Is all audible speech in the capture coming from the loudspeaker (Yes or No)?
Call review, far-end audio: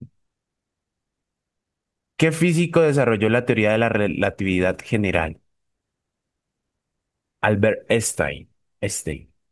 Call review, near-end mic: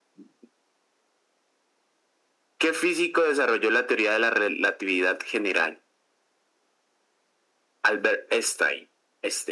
Yes